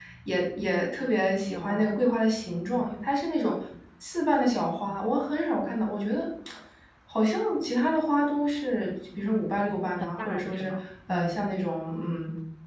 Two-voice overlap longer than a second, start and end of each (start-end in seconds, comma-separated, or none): 10.0-11.5